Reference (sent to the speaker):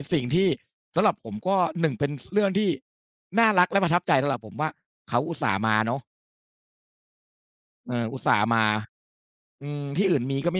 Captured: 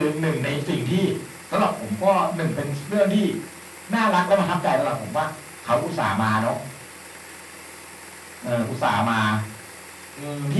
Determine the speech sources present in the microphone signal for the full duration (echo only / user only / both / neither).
echo only